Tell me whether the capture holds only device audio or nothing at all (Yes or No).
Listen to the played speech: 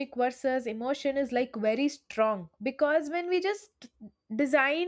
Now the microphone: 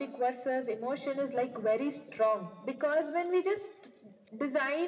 Yes